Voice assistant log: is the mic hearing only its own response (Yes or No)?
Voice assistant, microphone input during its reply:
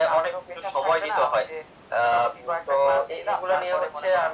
Yes